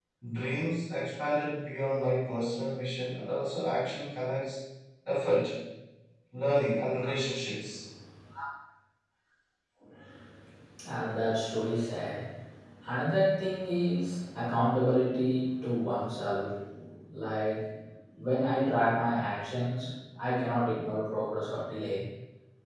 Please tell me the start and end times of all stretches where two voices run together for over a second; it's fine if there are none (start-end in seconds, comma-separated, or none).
none